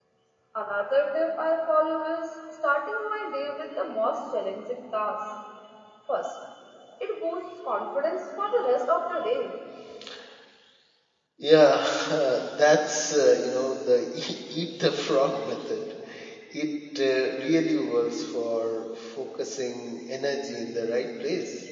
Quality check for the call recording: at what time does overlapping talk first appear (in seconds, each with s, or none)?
none